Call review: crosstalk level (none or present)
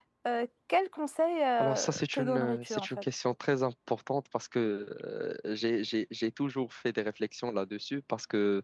present